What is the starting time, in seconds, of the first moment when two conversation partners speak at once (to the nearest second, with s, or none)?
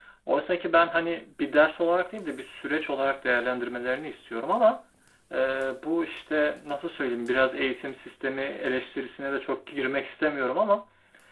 none